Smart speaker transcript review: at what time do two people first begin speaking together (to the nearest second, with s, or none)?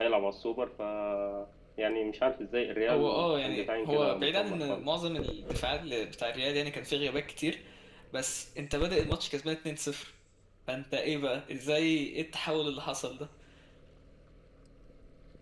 3 s